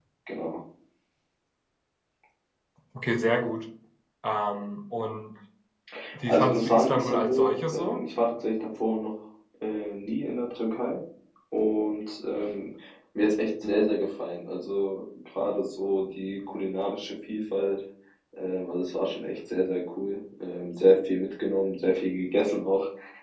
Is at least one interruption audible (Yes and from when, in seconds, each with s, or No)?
Yes, from 6.3 s